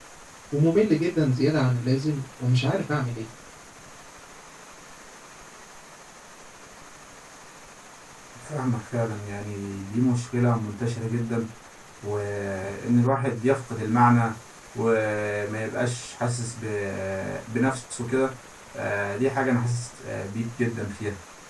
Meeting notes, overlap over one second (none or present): none